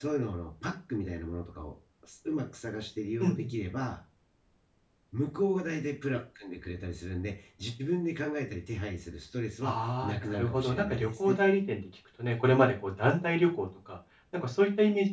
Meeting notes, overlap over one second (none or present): present